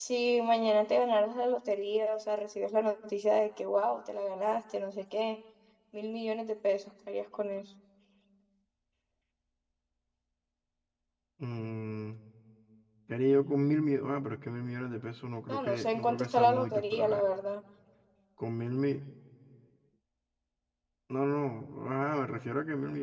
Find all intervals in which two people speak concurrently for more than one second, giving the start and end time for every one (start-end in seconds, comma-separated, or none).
15.5-17.3